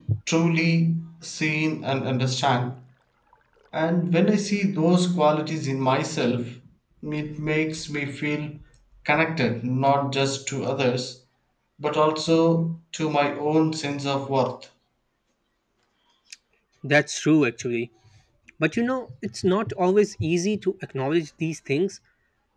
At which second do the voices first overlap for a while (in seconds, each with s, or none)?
none